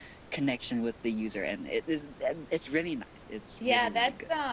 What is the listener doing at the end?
taking over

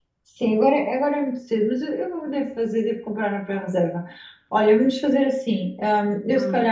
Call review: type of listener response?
listening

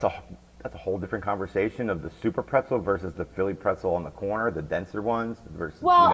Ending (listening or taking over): taking over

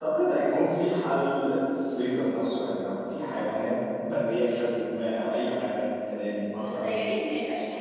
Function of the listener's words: taking over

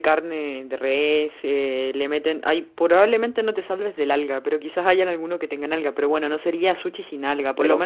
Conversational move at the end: listening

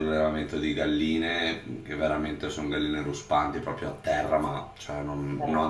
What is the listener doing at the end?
listening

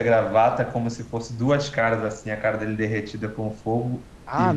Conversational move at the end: taking over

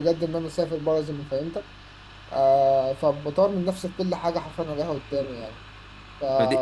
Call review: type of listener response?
taking over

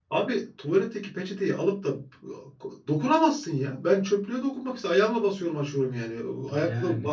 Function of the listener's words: listening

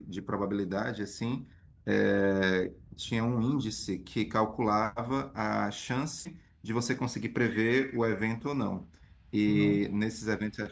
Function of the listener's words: listening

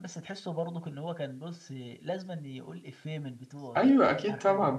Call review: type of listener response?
taking over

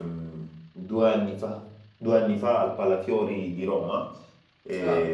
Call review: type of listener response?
listening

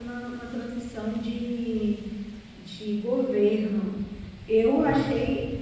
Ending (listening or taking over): listening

